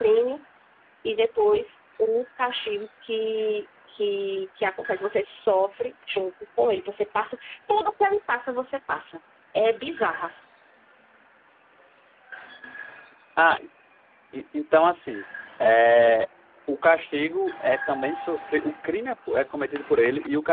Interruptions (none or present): none